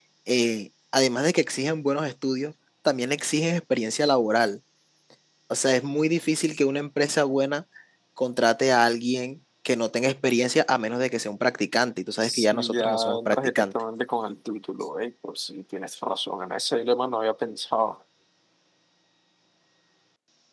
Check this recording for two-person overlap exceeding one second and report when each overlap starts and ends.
12.2-13.7

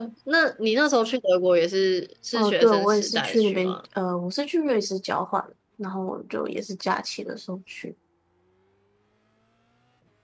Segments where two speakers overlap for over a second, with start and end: 2.3-3.8

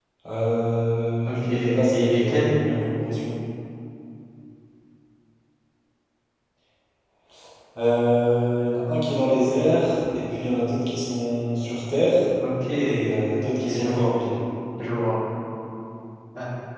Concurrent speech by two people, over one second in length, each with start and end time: 1.2-2.5

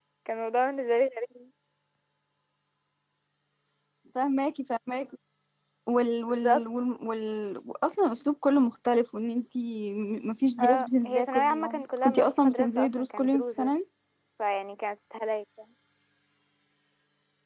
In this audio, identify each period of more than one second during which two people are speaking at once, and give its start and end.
10.6-13.8

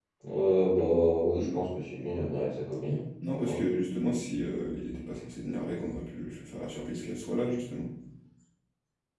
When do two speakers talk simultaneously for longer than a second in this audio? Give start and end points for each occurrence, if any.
none

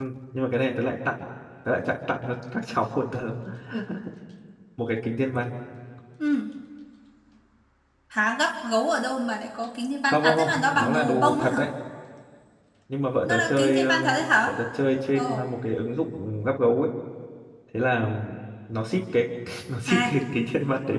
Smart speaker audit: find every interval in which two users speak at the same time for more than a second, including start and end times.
10.1-11.7, 13.2-14.5

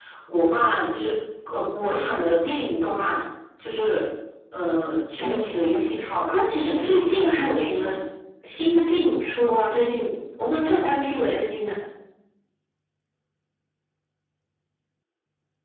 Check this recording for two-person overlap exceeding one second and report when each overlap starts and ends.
6.3-7.8

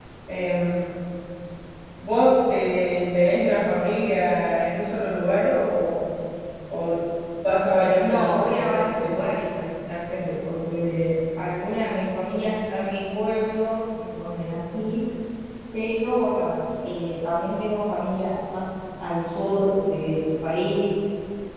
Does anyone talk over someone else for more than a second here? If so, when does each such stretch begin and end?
8.0-9.3

